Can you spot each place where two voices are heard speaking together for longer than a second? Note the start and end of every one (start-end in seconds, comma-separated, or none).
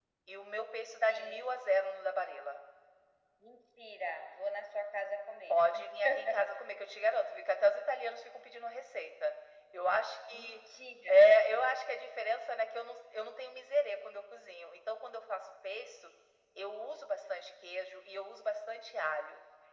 none